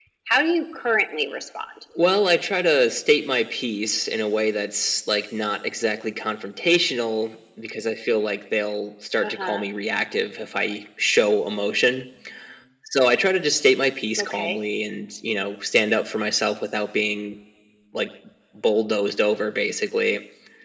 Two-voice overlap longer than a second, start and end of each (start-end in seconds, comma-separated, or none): none